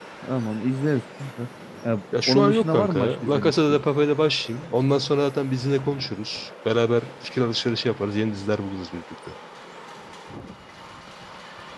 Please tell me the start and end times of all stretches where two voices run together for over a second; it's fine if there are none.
2.3-3.8

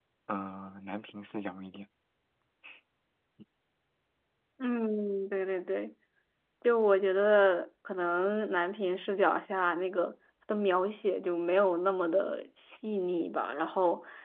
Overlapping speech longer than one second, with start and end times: none

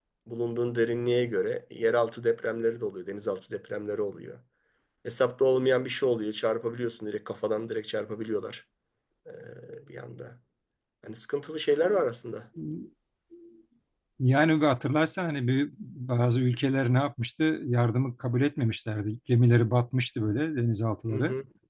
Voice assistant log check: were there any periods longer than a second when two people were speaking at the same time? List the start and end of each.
none

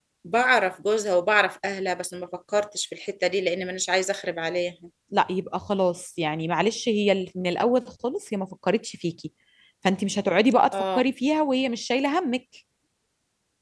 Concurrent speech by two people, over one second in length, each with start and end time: none

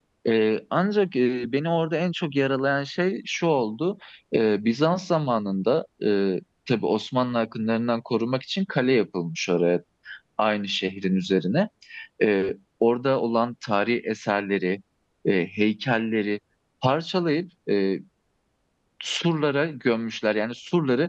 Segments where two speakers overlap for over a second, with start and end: none

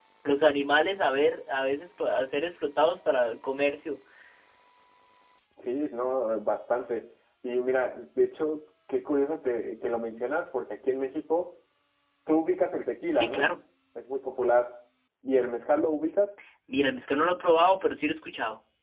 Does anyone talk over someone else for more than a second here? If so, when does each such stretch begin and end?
none

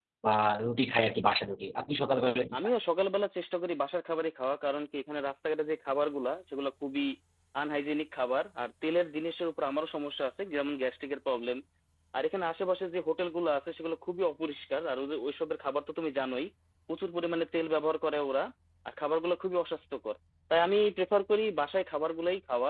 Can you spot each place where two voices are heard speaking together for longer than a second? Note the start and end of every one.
none

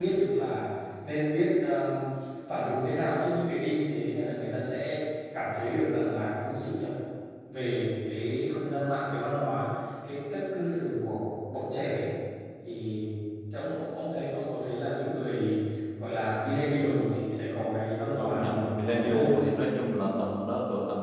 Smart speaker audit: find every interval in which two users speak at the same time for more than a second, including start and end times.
18.2-19.6

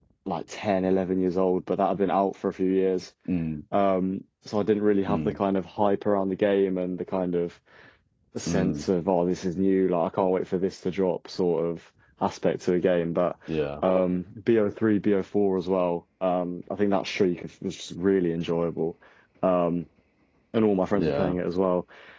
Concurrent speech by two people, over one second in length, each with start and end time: none

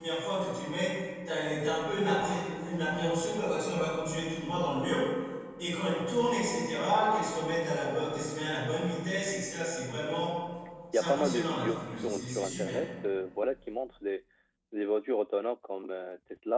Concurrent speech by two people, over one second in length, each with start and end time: 10.9-12.8

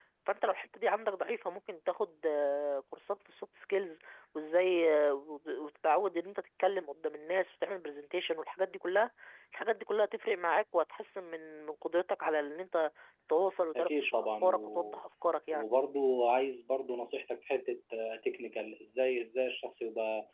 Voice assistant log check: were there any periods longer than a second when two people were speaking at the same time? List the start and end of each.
13.8-15.0

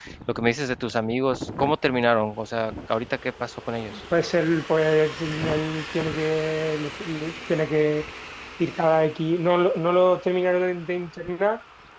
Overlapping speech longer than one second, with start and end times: none

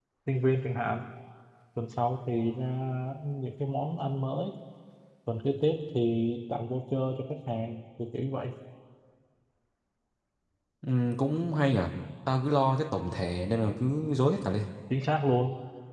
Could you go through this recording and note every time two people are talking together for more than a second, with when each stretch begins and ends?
none

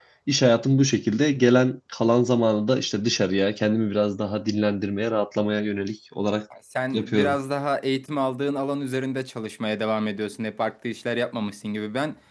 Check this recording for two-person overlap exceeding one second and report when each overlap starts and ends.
none

